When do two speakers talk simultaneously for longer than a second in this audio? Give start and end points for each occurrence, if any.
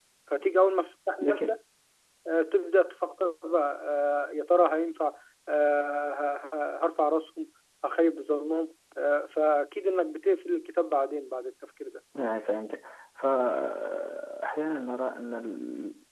none

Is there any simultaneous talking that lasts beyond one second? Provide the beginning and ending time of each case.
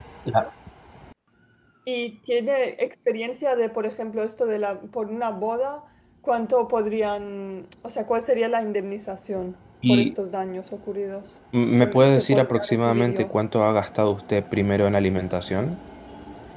11.8-13.3

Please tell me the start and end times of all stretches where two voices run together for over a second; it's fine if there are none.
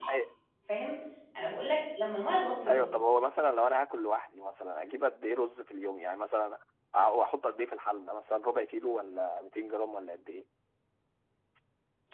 none

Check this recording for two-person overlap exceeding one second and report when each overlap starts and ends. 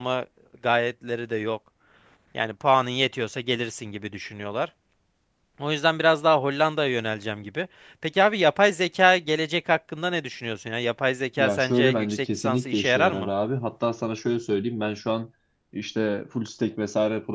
11.4-13.3

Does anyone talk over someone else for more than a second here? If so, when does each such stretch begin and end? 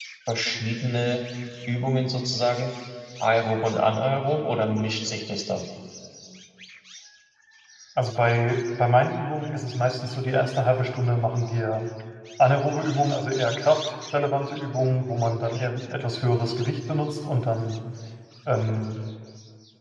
none

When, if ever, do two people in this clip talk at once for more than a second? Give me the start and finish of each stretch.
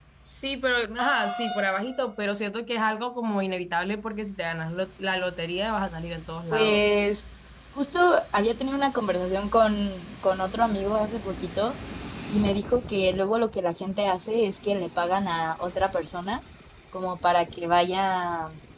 none

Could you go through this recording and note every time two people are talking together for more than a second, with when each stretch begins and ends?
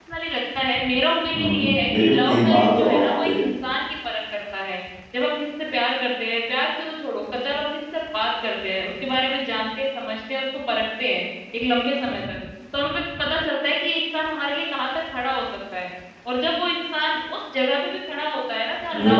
1.4-3.3

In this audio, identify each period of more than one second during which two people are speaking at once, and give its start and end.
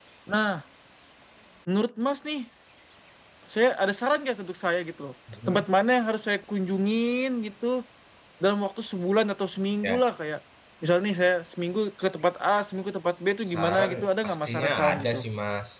13.5-15.2

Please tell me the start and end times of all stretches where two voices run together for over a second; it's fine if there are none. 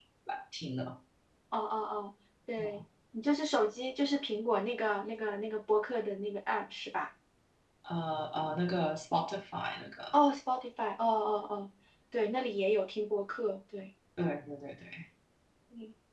none

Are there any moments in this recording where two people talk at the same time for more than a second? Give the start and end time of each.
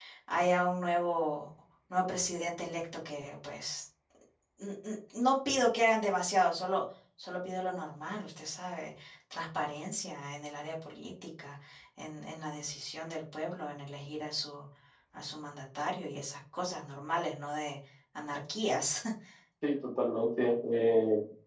none

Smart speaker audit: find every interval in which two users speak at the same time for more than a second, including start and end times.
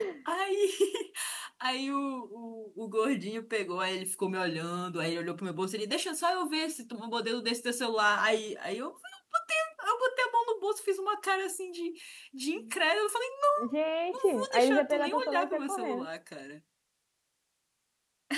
14.1-16.1

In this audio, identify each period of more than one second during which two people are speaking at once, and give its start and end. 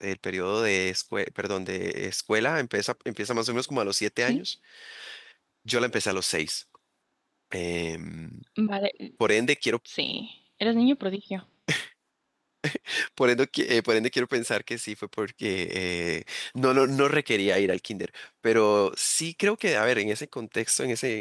none

